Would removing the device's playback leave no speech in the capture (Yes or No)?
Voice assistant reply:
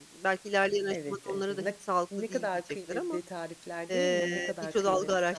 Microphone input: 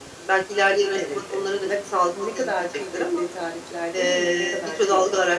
Yes